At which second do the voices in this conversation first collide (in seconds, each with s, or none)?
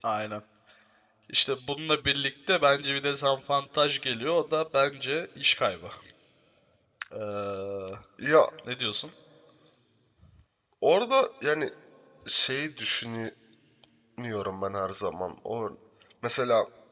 none